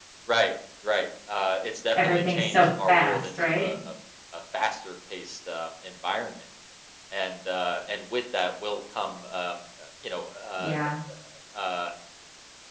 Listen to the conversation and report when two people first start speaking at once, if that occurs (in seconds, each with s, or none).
2.0 s